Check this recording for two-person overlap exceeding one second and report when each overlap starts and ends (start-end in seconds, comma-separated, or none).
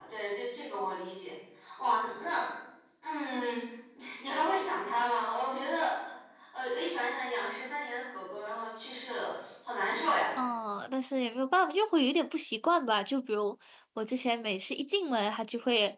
none